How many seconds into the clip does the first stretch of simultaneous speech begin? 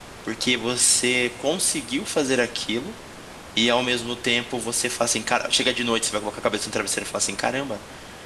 none

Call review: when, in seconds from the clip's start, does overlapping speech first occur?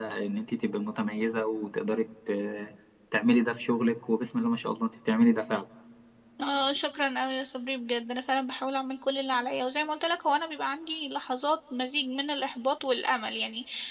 none

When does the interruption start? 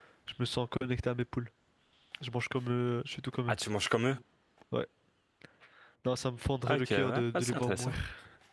6.7 s

